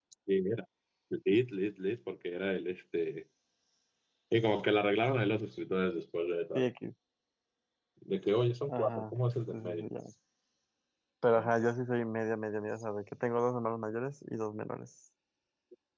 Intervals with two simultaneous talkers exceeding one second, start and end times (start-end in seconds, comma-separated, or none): none